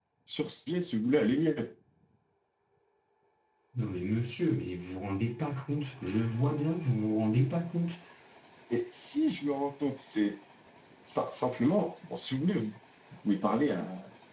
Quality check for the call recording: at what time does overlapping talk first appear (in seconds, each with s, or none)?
none